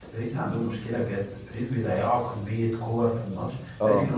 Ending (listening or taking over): listening